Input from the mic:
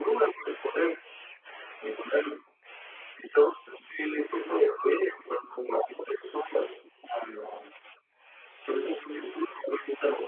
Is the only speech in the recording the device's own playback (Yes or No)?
Yes